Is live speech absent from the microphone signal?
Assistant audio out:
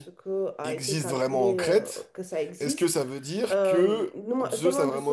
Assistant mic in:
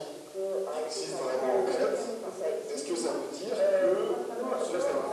No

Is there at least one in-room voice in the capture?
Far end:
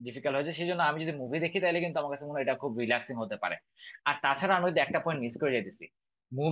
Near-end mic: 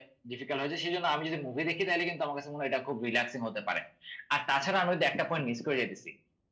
No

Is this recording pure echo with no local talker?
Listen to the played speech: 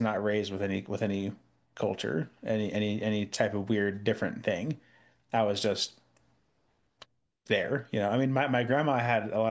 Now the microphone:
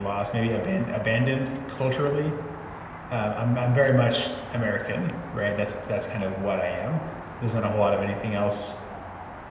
No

